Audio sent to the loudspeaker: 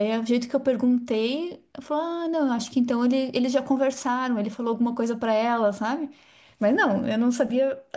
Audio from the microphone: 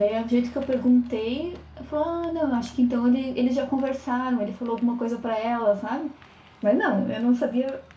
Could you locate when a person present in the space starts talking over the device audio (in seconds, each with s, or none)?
none